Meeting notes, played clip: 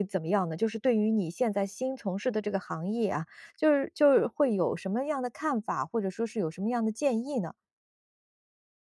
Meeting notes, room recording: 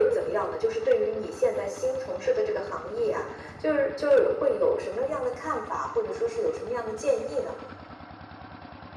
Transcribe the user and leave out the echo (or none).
none